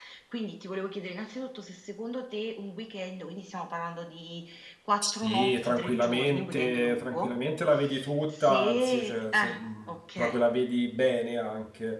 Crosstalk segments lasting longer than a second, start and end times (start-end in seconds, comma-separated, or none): 5.0-7.4, 8.3-10.4